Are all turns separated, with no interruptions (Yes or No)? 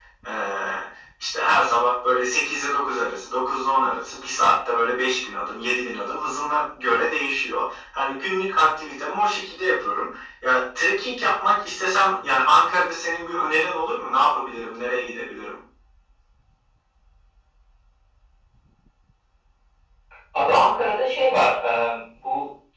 Yes